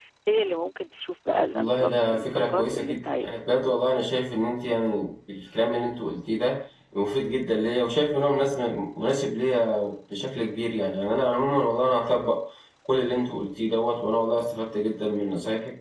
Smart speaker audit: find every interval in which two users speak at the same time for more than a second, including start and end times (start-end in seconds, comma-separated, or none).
1.5-3.4